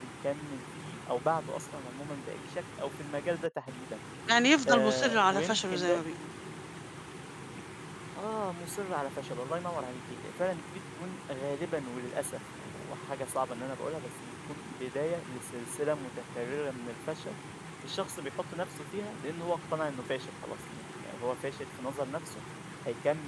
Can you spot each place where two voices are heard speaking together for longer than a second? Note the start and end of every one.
4.7-6.1

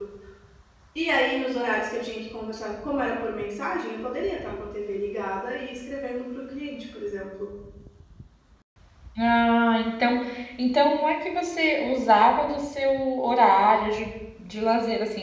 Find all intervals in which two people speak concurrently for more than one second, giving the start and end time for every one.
none

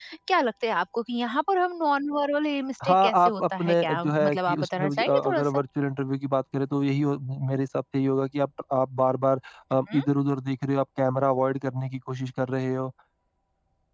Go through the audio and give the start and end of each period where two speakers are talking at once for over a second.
2.8-5.6

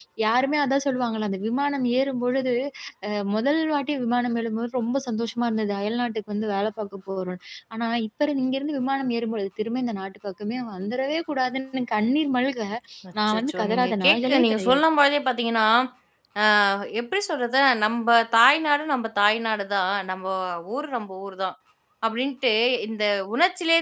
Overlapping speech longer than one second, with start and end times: 13.3-14.8

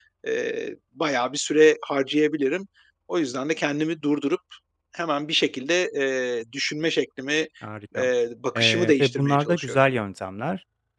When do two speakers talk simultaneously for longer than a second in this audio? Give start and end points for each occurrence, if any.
8.6-9.8

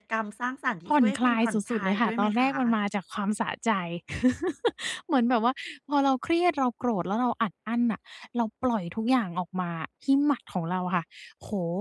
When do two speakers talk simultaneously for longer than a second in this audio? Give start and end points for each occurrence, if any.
0.9-2.5

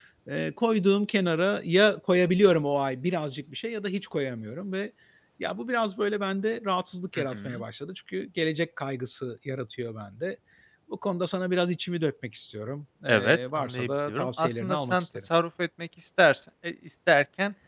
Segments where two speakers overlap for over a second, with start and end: 13.1-15.2

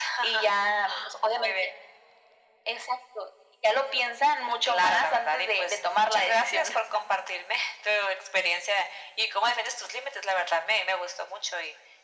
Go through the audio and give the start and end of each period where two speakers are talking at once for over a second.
4.6-6.8

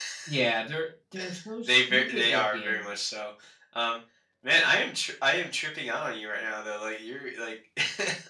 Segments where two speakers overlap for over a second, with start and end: 1.6-2.9

